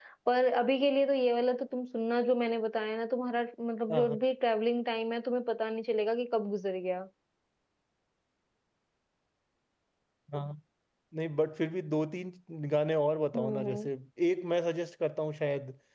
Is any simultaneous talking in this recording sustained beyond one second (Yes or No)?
No